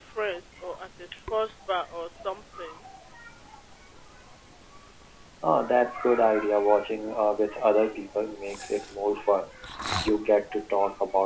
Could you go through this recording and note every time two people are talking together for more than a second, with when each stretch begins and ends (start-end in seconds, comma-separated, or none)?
none